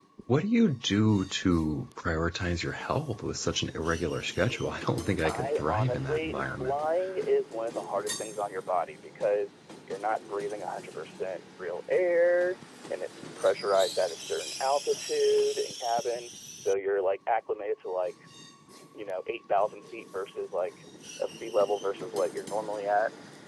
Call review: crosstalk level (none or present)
present